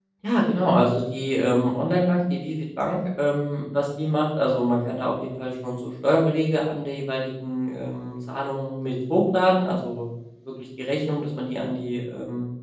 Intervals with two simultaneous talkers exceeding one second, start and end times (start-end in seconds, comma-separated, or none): none